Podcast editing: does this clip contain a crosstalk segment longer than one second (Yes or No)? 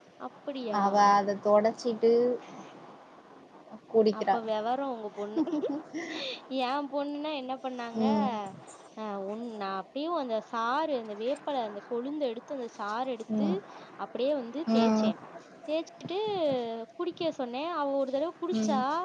No